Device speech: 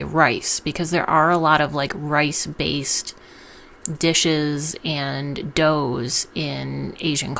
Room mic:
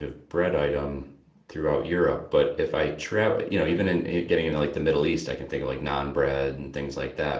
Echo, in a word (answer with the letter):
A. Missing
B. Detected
A